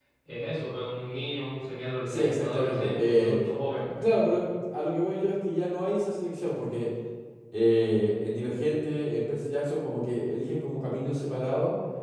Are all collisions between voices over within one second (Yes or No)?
No